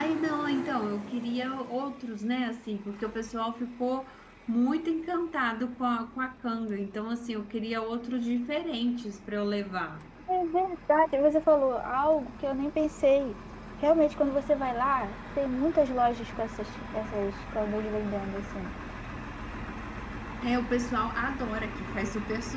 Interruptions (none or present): none